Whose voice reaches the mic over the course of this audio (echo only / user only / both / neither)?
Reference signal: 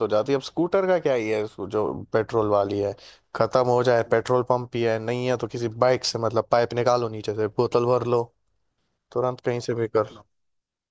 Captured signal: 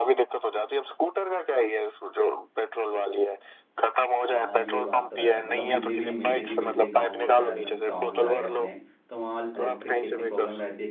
both